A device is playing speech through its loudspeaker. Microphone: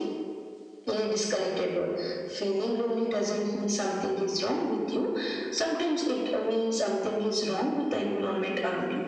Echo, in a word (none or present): present